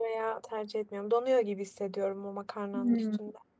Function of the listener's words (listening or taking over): taking over